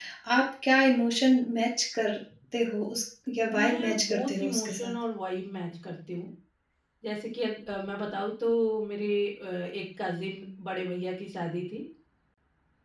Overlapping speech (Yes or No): Yes